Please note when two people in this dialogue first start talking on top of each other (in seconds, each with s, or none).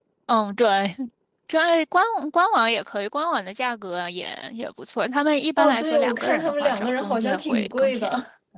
5.6 s